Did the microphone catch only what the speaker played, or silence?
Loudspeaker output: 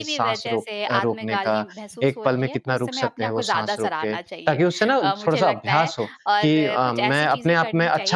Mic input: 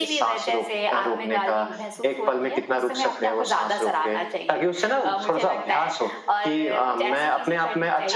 Yes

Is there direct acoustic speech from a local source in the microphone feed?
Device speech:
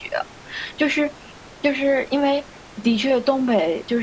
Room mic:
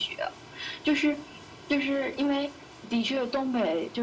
No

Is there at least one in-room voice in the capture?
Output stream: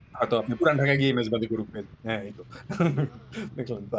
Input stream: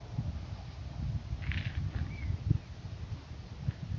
No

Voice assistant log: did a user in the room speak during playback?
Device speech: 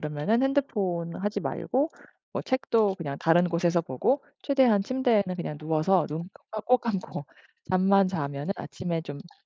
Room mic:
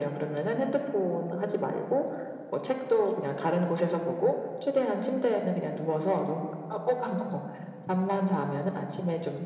No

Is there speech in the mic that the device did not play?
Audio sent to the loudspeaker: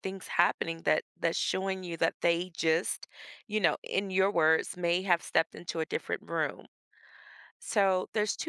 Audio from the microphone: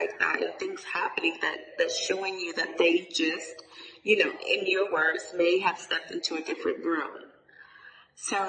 No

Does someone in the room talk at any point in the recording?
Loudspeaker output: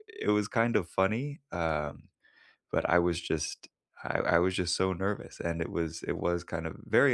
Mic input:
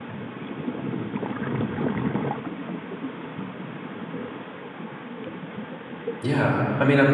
Yes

